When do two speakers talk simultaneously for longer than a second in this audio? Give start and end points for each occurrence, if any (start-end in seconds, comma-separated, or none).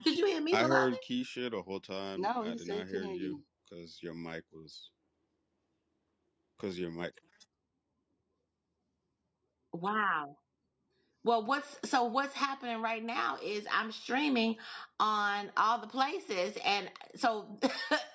2.2-3.4